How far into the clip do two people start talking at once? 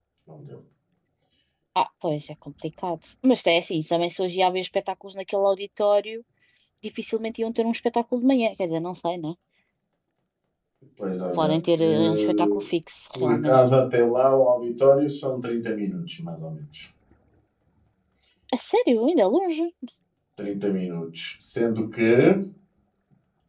11.4 s

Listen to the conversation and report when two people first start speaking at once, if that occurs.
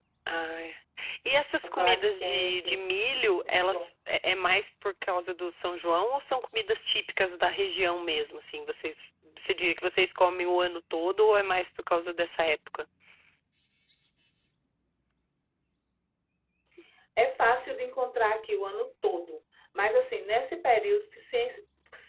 1.6 s

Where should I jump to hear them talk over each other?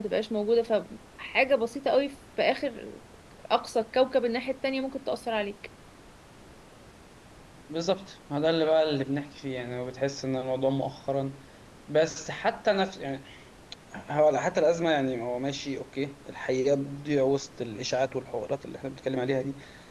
none

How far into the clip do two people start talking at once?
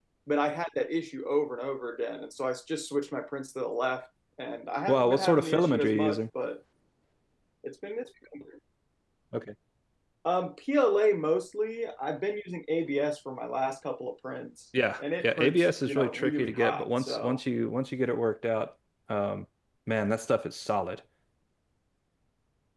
4.9 s

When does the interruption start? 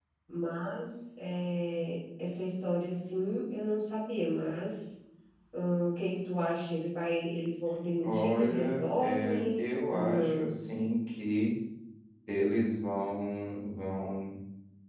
8.0 s

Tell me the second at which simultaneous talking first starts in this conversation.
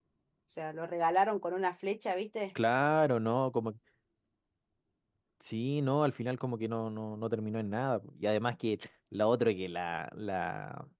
none

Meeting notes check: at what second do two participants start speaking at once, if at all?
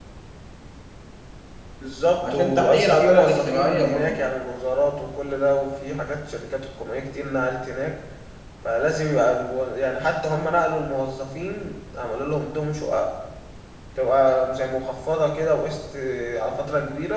2.2 s

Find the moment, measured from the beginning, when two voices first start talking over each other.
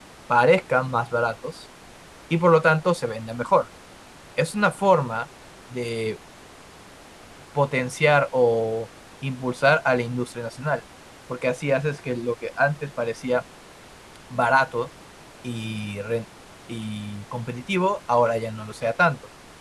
none

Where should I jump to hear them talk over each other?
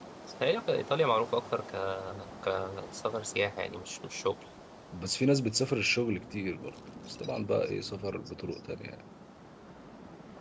none

